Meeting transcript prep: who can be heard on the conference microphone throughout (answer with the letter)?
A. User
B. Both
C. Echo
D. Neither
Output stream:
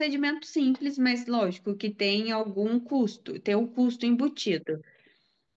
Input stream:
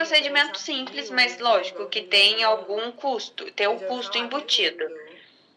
B